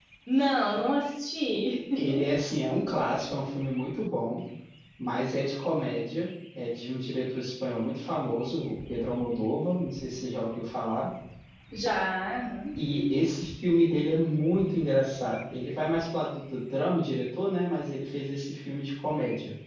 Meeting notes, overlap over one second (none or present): none